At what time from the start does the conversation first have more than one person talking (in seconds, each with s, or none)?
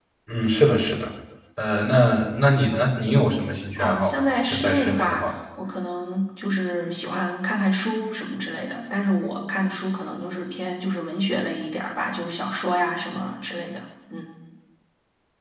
3.8 s